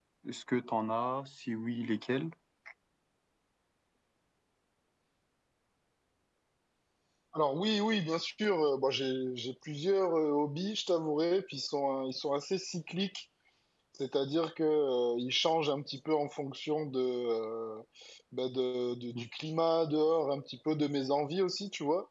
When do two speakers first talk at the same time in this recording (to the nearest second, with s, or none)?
none